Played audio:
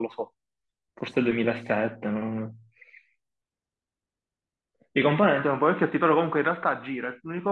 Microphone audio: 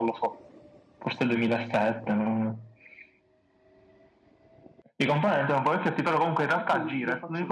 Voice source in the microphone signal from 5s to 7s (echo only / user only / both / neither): both